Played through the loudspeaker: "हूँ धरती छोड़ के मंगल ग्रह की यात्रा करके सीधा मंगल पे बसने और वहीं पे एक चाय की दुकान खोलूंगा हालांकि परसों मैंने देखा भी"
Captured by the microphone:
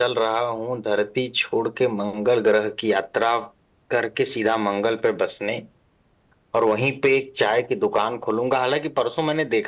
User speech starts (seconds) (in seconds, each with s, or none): none